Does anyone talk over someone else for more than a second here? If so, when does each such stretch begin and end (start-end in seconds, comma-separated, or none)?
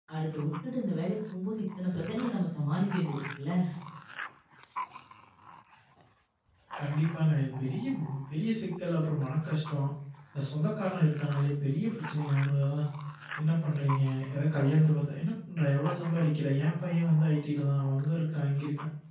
none